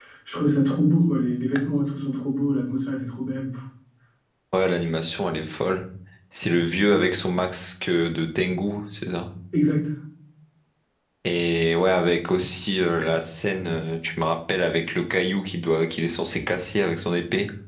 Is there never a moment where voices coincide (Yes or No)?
Yes